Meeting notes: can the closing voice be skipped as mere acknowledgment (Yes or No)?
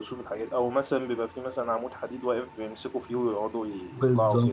No